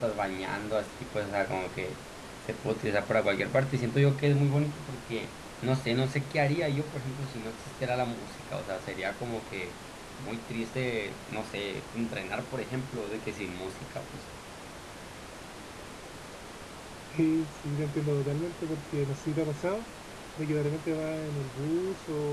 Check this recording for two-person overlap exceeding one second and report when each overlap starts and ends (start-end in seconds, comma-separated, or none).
none